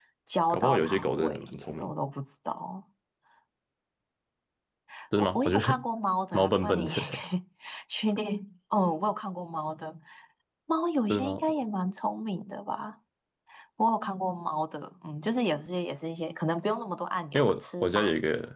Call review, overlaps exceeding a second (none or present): present